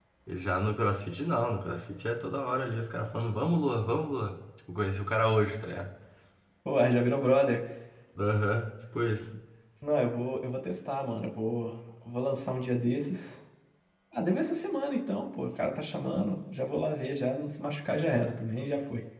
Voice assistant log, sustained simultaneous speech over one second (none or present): none